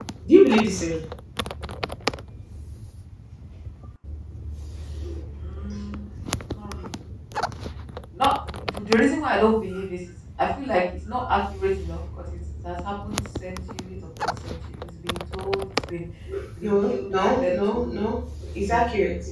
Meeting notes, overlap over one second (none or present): present